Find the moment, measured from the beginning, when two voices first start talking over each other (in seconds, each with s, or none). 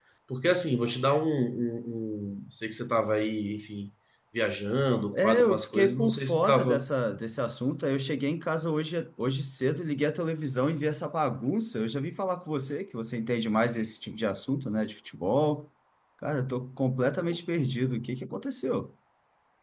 5.1 s